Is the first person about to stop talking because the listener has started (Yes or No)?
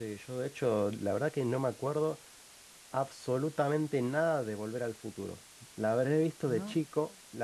No